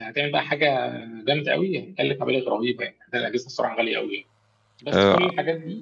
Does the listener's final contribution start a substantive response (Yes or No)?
No